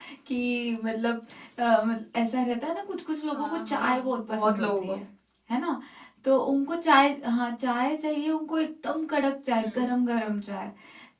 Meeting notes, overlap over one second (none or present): present